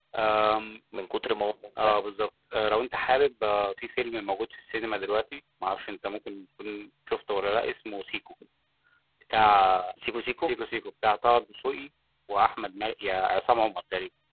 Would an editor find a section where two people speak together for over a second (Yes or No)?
No